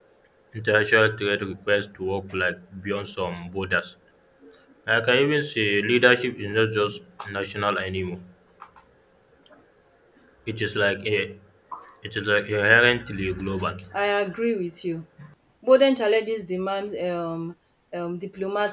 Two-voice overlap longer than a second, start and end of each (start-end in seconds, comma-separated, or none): none